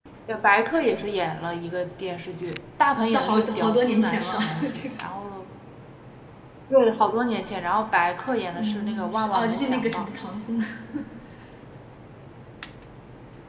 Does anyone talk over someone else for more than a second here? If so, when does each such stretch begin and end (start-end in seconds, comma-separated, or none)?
3.1-4.8, 8.5-10.1